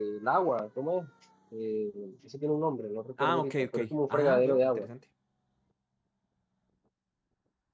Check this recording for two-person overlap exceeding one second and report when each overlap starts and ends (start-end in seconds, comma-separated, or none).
3.2-4.9